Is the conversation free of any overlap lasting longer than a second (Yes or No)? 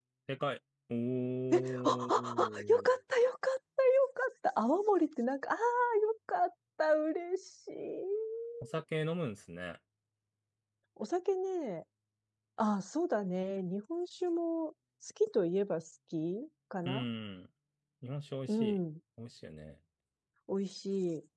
No